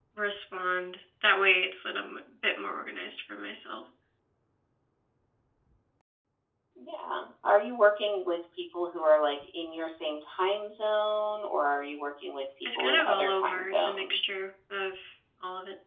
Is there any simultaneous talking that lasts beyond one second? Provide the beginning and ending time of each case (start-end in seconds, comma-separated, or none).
12.8-14.2